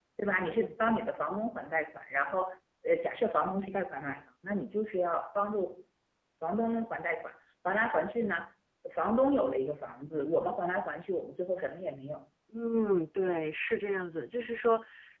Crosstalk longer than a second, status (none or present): none